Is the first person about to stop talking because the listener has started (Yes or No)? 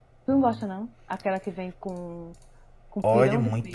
Yes